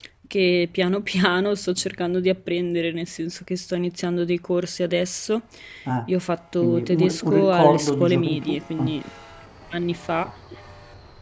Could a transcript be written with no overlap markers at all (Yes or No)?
No